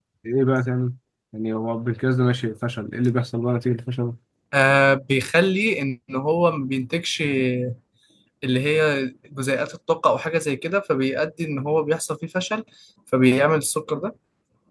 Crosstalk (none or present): none